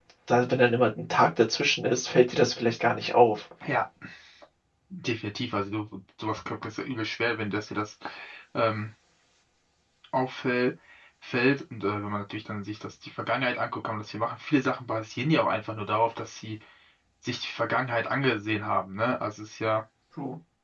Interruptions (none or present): none